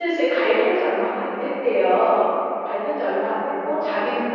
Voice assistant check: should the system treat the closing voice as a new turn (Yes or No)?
No